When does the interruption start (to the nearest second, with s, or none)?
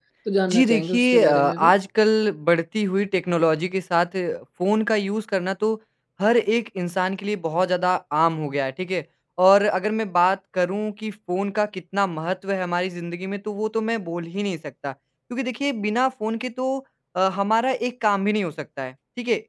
1 s